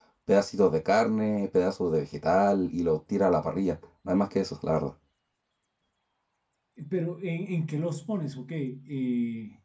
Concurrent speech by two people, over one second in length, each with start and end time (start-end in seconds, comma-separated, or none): none